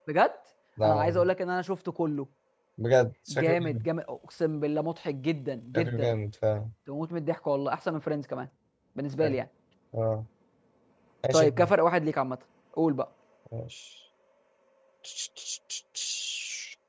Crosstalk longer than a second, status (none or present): none